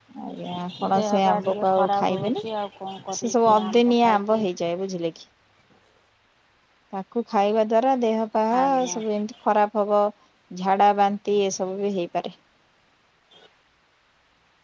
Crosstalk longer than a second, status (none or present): present